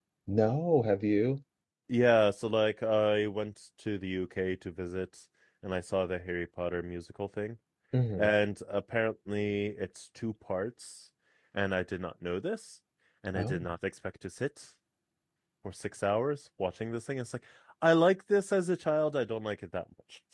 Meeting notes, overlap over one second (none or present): none